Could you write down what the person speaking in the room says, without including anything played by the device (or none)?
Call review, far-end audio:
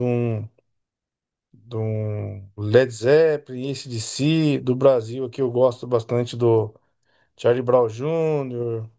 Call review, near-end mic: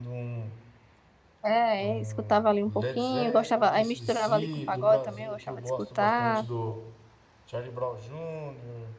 É, é, escutava ali um pouquinho, gostava, aí misturava ali com pagode também, eu gostava de escutar,